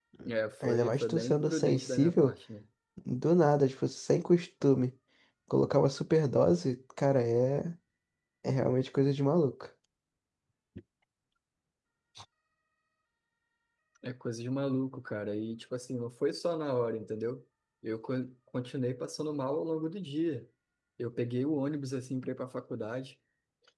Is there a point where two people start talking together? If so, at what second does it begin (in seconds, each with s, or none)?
0.7 s